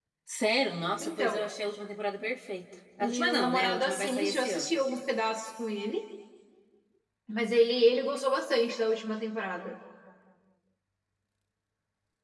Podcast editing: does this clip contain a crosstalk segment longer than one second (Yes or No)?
Yes